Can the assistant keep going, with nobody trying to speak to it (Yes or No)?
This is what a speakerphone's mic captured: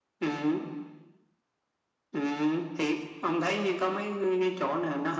Yes